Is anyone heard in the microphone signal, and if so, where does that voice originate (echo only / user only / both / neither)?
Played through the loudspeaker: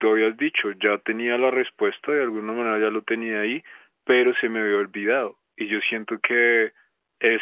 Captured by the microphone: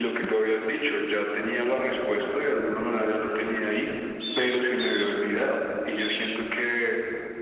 echo only